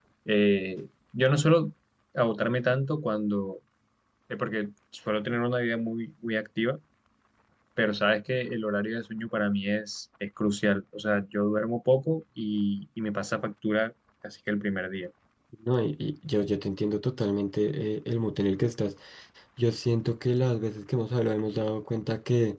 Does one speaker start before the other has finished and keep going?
No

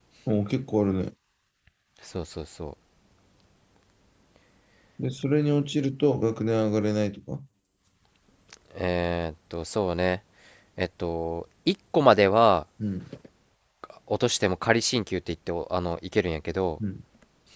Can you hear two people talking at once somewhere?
No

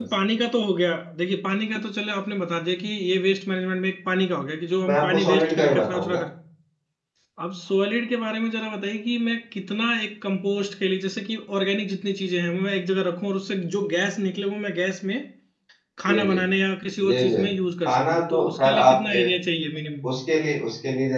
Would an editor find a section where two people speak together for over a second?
Yes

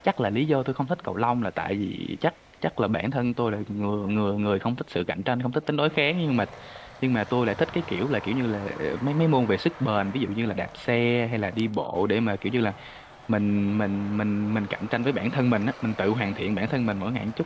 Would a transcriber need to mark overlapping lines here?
No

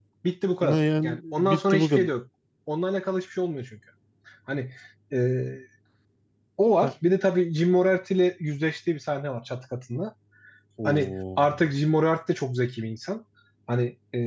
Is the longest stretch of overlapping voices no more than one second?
No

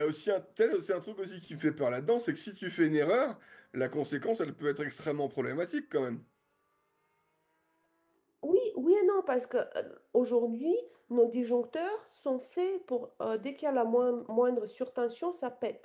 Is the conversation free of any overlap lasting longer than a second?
Yes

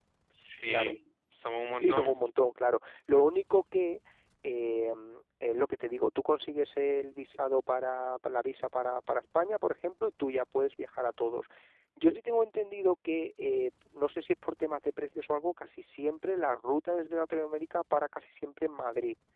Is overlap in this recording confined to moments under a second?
Yes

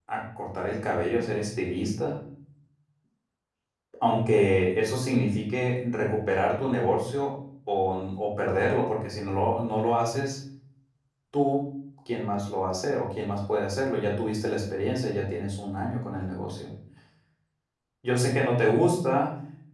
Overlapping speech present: No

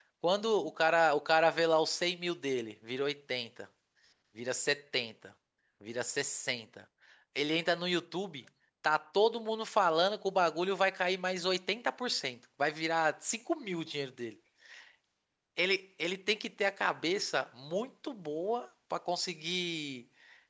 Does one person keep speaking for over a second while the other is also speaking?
No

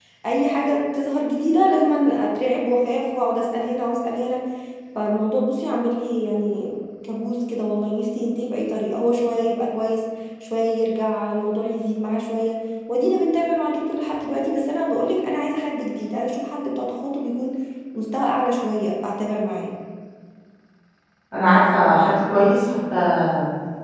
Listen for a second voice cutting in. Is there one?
No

